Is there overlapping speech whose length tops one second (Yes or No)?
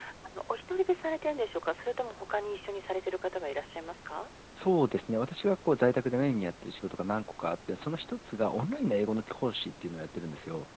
No